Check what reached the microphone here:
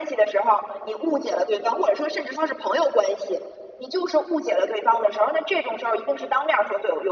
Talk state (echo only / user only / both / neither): echo only